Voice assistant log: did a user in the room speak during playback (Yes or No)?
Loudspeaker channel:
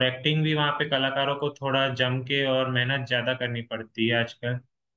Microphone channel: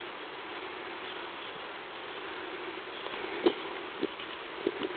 No